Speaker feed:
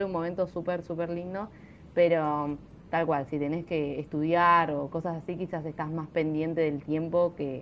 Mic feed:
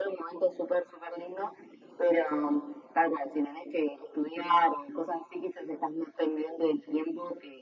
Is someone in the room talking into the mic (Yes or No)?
No